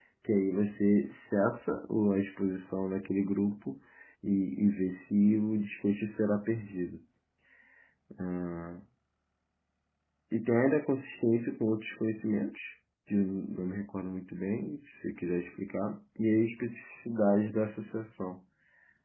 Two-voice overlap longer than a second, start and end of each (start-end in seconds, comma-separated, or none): none